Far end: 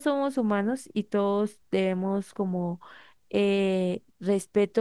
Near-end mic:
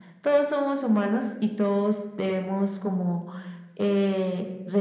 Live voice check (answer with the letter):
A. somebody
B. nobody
B